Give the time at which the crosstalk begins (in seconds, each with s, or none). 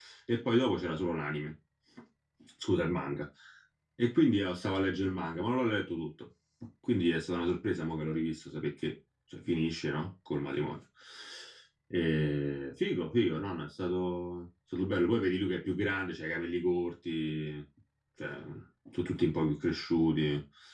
none